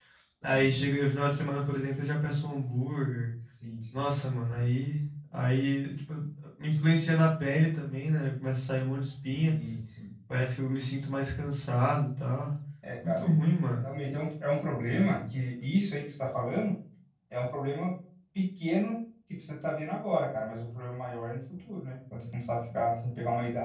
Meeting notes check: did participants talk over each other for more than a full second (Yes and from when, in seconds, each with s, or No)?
No